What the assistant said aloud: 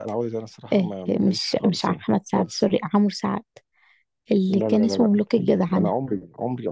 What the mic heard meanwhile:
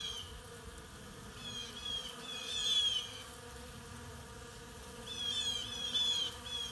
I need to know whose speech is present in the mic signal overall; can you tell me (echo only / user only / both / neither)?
neither